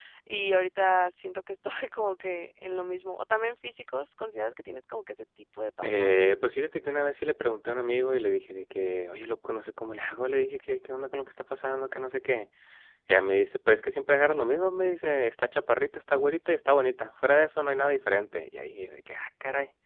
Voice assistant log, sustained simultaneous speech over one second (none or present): none